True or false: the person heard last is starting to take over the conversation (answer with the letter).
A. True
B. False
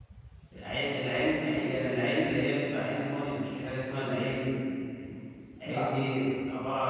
B